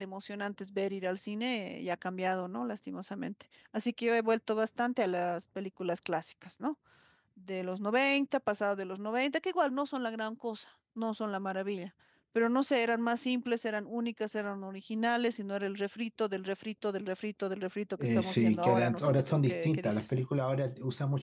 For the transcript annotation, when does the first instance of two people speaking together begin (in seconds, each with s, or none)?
18.0 s